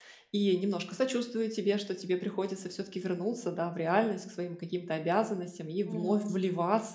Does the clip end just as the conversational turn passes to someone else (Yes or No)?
No